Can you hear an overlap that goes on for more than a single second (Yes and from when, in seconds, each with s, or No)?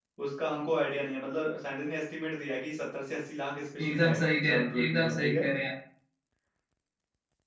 Yes, from 3.8 s